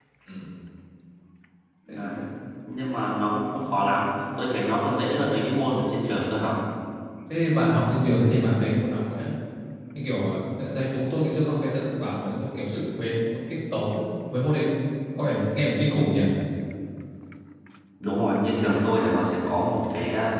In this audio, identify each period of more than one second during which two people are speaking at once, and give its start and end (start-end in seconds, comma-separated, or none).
none